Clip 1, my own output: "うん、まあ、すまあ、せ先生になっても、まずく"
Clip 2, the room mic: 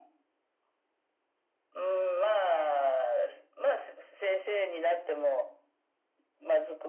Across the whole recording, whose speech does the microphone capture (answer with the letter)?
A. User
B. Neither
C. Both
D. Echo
D